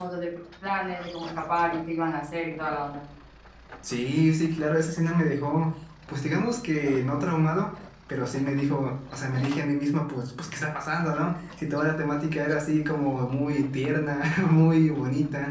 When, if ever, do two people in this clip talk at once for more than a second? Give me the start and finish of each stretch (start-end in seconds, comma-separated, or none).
none